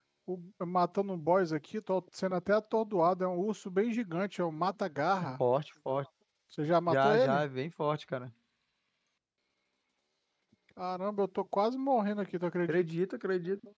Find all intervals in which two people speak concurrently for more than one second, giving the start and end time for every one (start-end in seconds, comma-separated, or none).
none